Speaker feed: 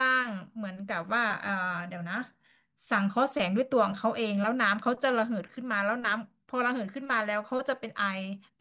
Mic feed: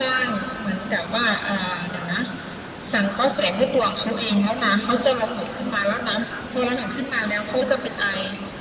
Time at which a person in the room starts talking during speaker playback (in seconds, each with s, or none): none